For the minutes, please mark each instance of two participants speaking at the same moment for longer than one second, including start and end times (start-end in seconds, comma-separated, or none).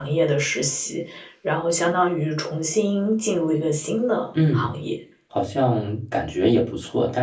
none